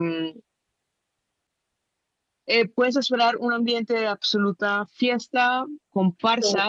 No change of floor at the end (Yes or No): Yes